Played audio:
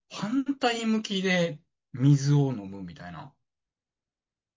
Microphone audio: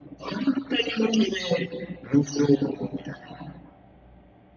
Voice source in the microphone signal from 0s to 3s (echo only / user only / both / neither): echo only